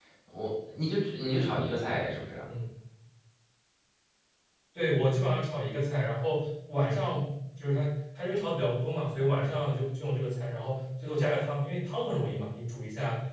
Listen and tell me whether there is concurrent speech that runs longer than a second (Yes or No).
No